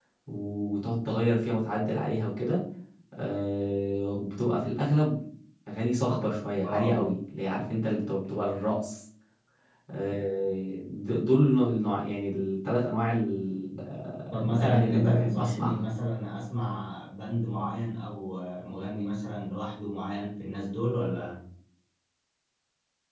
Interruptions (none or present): present